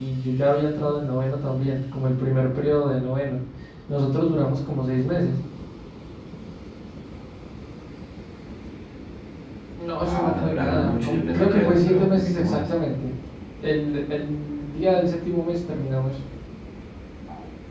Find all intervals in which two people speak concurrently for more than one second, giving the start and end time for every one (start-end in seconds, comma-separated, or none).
10.1-12.6